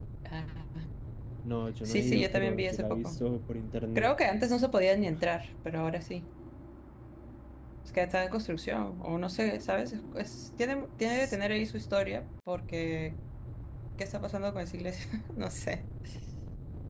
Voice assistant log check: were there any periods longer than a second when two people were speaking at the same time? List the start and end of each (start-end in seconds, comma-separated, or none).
1.9-3.2